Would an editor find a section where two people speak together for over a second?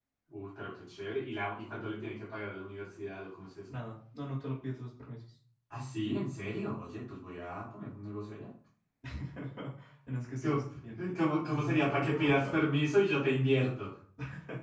Yes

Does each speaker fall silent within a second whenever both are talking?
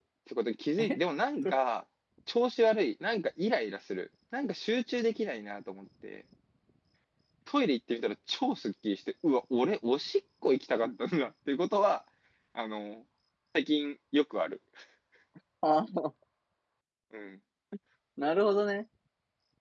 Yes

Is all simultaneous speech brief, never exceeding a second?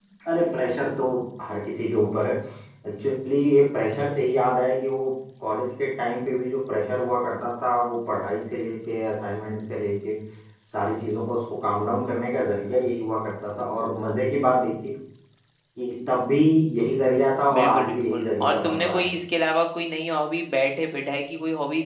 No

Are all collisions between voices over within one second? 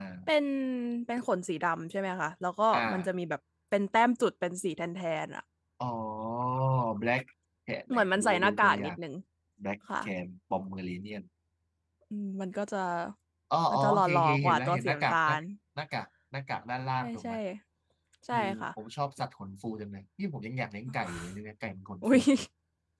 No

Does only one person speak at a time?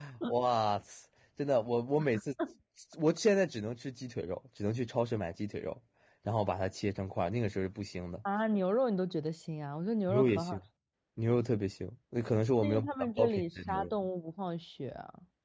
No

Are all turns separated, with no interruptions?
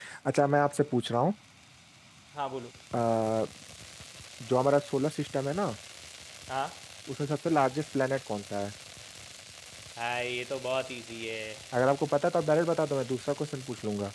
Yes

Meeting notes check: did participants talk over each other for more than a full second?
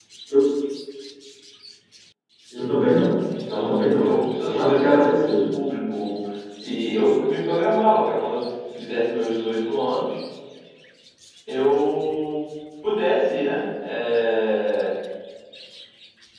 Yes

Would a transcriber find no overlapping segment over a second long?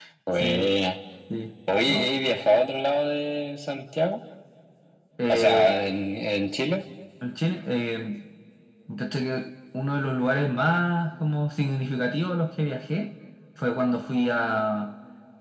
Yes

